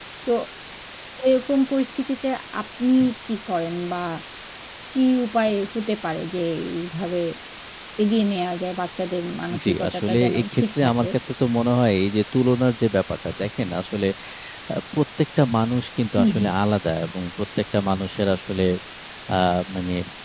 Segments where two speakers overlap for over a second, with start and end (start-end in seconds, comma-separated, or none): 9.7-11.1